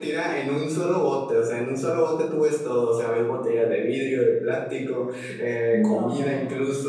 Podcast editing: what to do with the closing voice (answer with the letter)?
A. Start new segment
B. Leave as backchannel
B